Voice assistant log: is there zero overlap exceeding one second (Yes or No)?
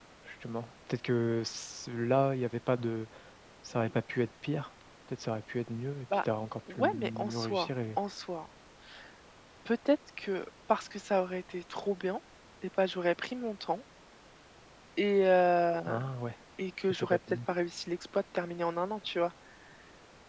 No